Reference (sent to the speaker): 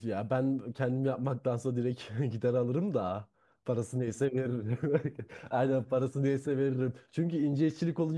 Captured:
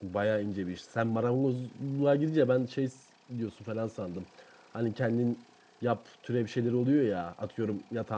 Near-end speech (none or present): present